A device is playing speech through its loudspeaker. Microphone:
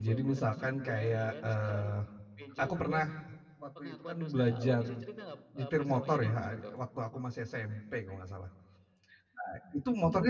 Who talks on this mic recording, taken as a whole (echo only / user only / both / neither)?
both